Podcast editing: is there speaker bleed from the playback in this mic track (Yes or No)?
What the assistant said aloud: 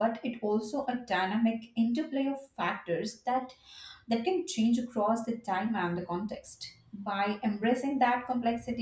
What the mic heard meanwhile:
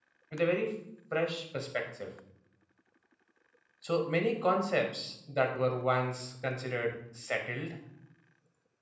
No